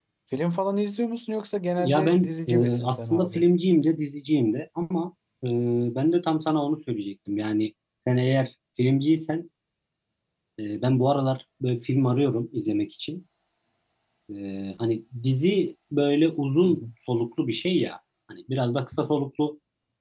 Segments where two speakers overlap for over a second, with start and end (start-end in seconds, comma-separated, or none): 1.8-3.4